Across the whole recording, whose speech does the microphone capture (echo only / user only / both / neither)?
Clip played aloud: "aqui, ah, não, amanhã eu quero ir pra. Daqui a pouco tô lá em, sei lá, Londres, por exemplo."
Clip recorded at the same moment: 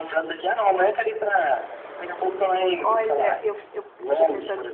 both